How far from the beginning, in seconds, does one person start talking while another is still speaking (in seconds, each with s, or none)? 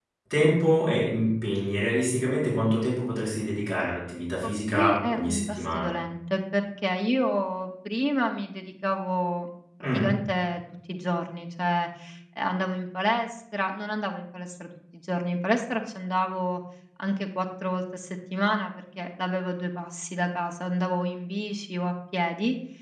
4.4 s